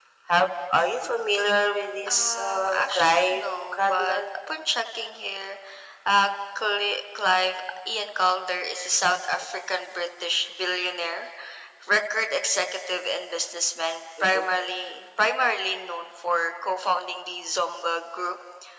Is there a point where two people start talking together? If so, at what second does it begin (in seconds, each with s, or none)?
2.1 s